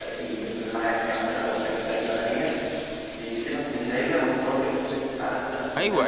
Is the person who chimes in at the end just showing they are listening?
No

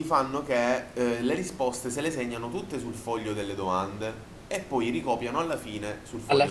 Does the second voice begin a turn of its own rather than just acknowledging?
Yes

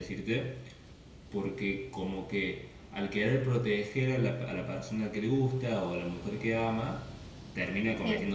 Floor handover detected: No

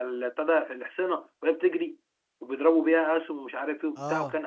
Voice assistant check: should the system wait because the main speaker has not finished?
Yes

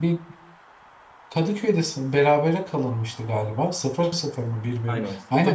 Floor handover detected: Yes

